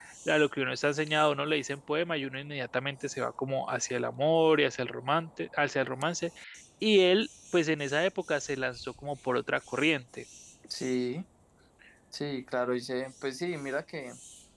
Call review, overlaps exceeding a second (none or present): none